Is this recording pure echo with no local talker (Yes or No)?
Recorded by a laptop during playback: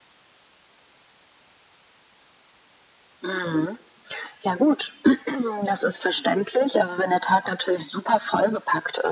Yes